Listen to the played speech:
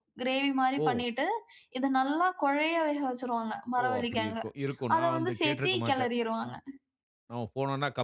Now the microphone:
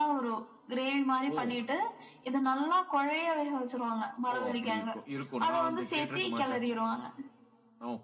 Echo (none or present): present